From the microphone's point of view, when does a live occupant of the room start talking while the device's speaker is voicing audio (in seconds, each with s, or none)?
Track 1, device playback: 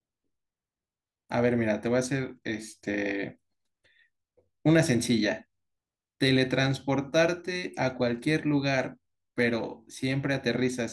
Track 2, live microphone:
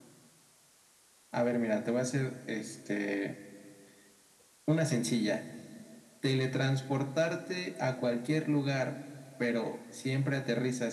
none